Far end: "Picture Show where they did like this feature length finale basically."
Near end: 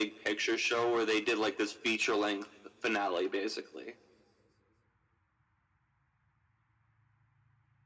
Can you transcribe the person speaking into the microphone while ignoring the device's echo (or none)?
none